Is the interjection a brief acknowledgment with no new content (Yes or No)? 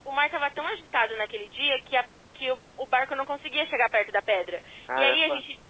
Yes